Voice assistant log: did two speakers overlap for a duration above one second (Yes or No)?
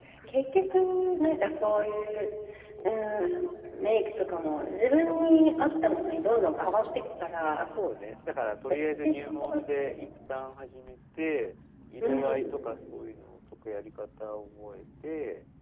Yes